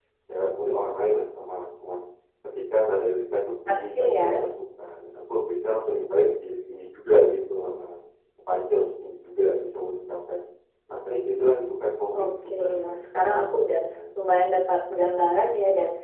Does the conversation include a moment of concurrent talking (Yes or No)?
Yes